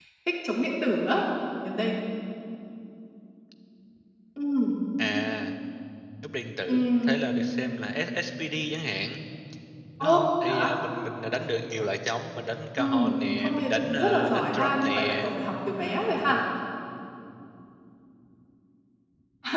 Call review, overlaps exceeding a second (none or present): present